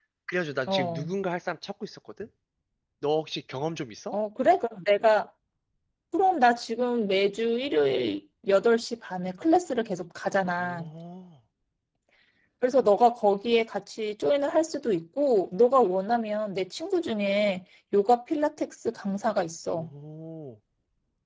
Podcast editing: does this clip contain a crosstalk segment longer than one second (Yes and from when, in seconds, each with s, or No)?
No